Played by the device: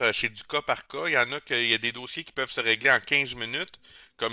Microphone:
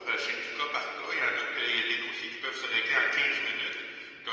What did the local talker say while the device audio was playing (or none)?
none